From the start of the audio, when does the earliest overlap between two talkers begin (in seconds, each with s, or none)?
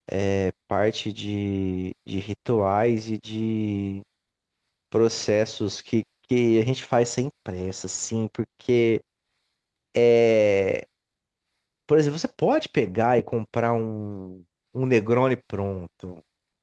none